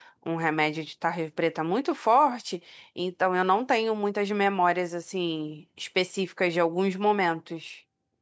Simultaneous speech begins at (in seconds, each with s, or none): none